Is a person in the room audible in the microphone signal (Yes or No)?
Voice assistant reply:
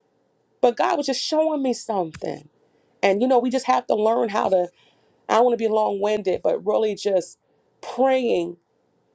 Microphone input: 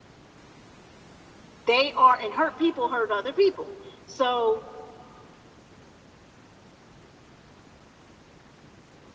Yes